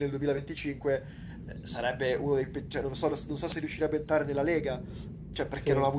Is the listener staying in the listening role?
Yes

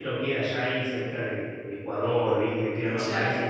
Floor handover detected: No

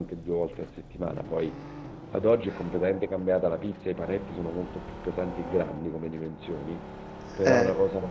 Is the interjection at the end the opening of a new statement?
No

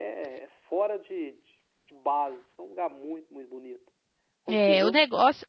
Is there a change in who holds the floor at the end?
Yes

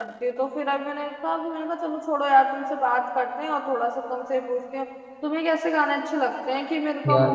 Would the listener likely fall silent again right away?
Yes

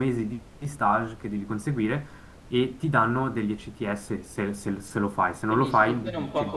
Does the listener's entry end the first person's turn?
Yes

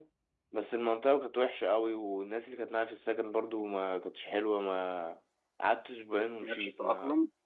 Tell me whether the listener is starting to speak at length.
No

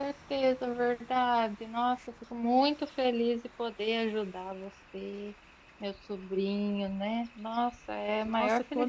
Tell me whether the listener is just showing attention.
No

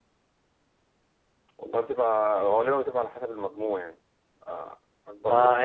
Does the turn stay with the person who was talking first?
No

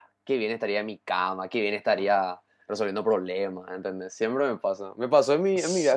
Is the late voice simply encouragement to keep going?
Yes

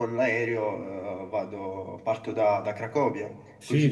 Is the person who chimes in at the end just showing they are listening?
No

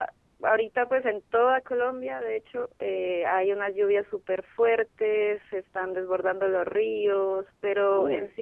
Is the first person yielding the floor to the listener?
No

